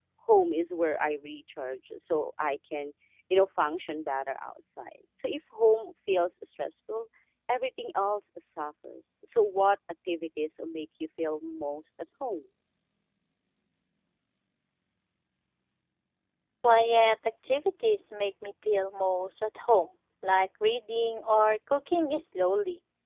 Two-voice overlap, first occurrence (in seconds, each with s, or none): none